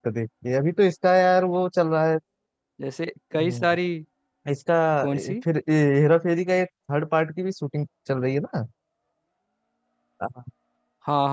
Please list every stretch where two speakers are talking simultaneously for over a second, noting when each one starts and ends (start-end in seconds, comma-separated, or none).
none